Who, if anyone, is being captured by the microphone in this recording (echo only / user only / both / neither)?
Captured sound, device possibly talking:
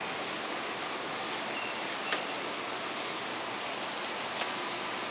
neither